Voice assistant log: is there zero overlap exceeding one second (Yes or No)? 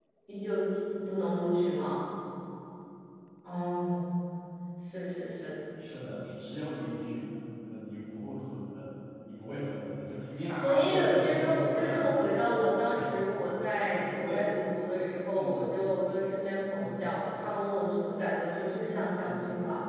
No